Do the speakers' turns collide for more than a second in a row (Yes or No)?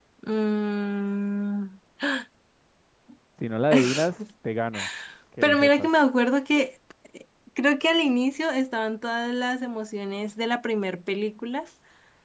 No